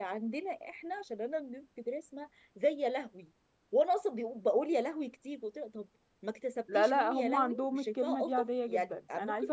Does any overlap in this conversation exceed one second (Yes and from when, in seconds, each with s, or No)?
Yes, from 6.7 s